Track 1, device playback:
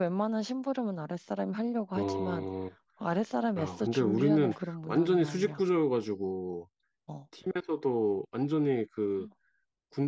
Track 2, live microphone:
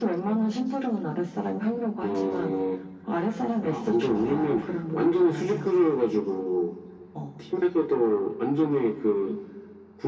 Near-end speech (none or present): none